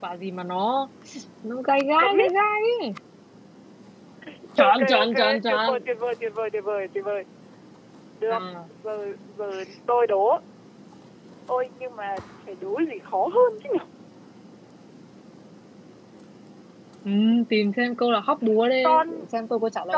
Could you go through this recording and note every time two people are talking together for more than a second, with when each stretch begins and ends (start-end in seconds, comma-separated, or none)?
4.6-5.8